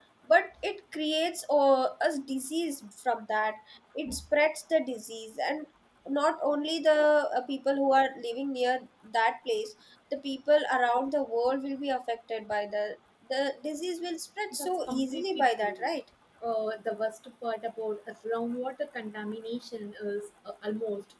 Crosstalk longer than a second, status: present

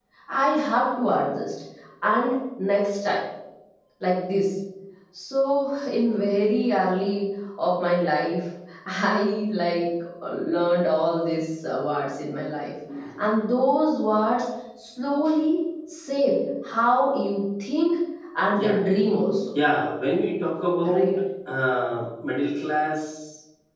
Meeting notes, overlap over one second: none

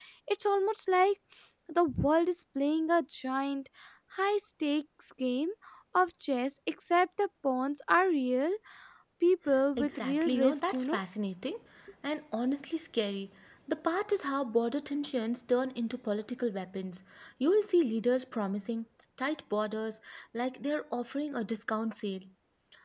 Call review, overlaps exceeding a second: present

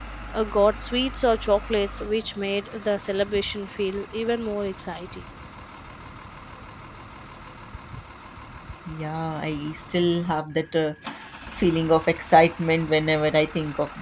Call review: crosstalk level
none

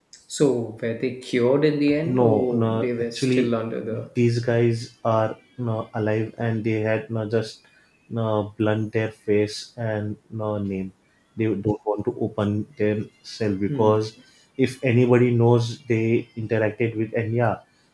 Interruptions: present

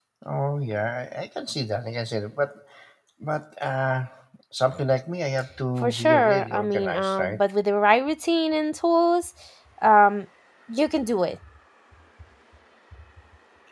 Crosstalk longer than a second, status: present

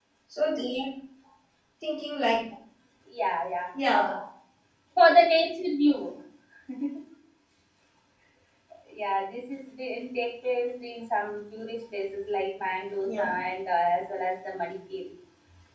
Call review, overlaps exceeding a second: none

